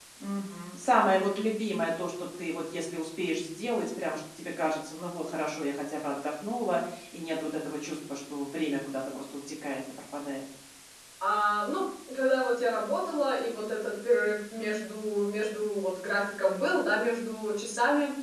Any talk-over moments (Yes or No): No